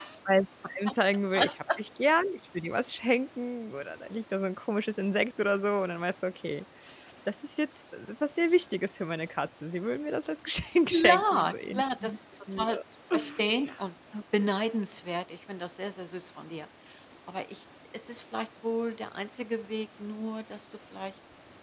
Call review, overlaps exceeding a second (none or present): present